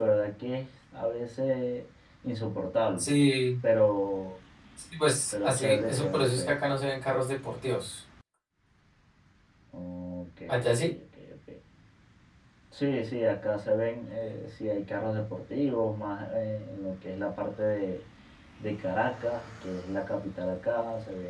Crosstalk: present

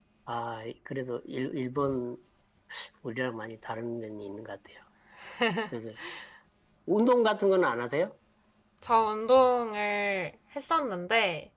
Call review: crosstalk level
none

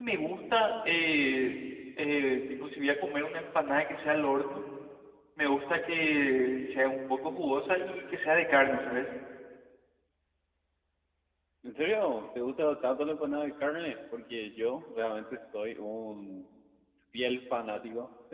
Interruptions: none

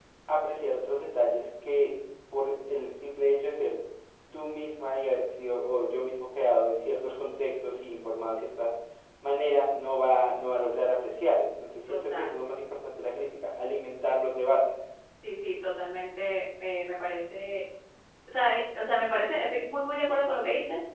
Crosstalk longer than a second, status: none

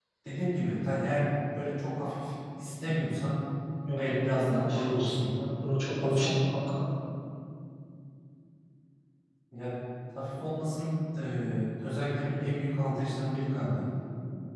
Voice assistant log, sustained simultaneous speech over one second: present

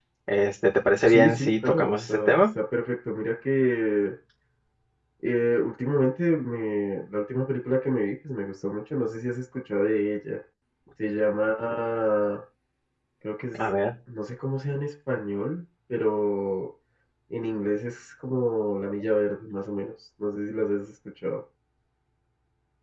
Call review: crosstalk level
present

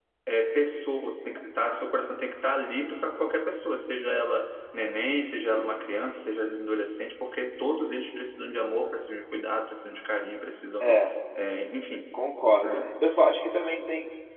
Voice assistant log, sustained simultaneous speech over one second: none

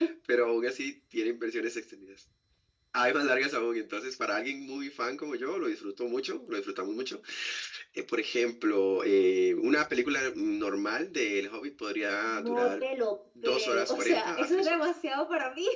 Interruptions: present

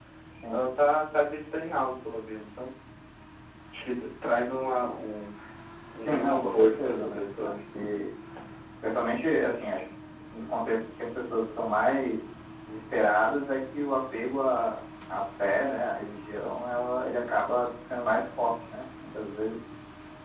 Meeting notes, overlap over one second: present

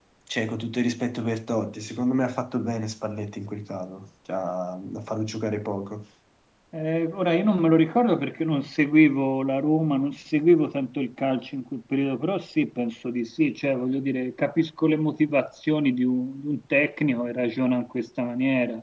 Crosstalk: none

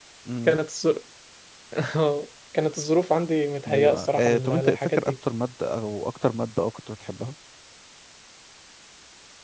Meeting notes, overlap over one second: present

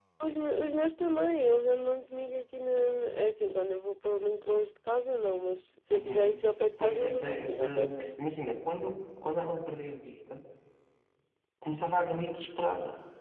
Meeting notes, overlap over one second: present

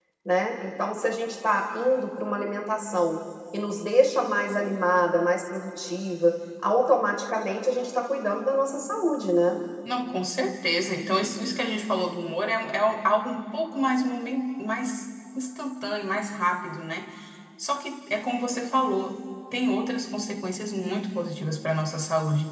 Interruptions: none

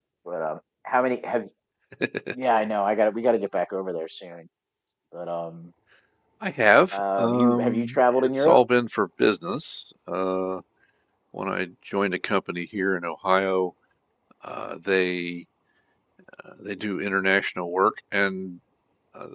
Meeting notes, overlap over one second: present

